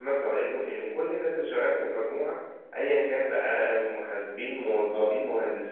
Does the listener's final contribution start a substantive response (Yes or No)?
No